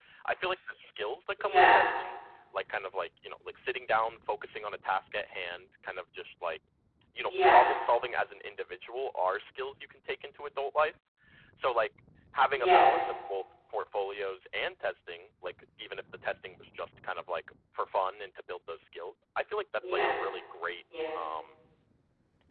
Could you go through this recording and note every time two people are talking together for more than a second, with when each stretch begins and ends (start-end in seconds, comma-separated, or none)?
none